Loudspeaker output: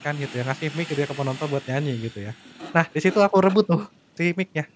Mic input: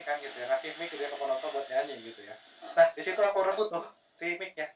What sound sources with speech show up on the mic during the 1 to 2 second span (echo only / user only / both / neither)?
echo only